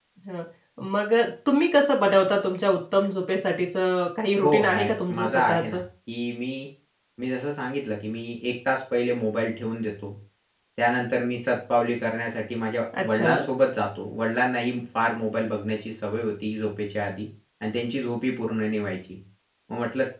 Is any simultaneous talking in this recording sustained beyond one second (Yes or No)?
Yes